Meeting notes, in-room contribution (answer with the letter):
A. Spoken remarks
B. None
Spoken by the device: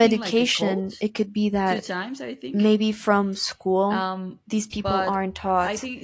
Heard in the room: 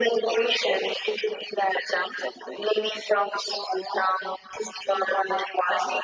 B